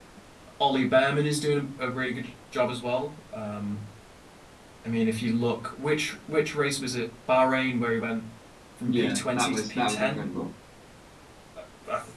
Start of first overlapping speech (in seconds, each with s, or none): 8.9 s